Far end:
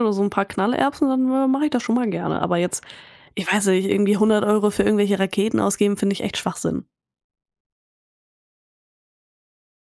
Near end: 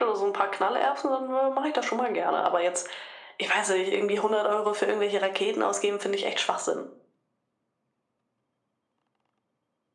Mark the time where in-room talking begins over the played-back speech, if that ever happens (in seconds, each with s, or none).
none